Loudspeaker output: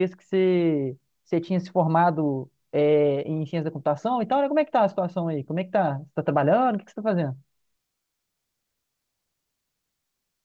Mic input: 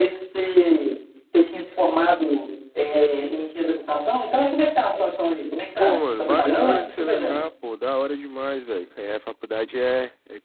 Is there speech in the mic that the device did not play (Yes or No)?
Yes